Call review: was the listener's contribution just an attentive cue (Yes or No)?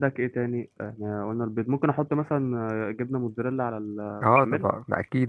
No